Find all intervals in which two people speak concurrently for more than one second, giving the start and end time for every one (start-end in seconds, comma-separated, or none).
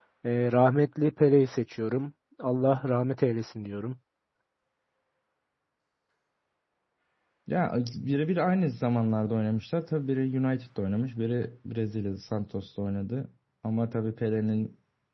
none